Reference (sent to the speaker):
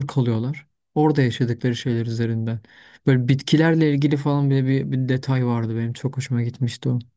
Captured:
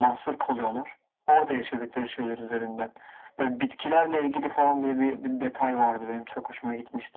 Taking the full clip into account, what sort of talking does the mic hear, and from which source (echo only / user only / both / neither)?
echo only